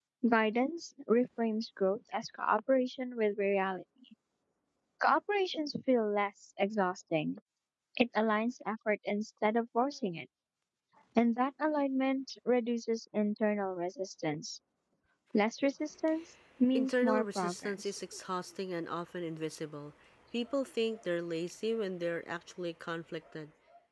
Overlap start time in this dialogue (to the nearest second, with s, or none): 17 s